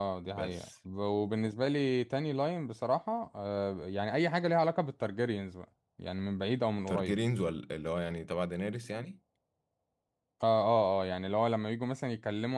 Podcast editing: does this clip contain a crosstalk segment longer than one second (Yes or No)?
No